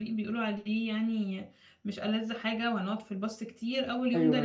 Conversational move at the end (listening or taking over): listening